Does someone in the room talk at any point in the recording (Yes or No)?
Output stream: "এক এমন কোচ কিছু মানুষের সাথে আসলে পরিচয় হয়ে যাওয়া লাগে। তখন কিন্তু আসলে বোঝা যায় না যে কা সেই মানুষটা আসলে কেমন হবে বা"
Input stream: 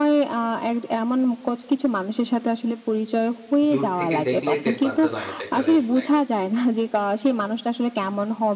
Yes